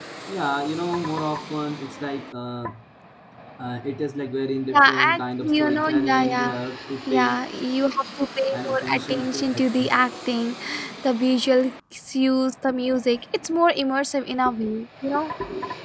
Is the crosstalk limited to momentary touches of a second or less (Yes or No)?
No